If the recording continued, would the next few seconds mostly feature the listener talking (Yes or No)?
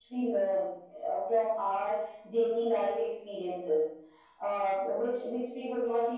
No